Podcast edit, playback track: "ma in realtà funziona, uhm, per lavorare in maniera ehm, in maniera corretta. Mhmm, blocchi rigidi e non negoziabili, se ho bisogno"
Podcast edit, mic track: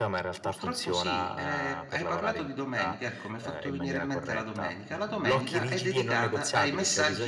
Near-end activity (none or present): present